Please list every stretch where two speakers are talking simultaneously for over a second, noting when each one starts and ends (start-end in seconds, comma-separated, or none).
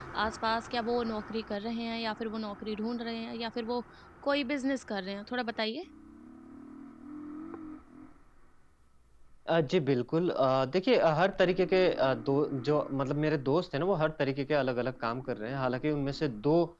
none